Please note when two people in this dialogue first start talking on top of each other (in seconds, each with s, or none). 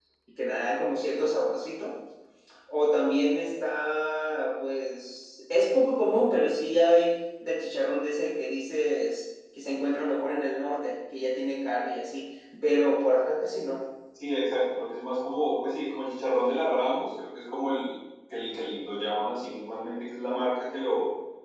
none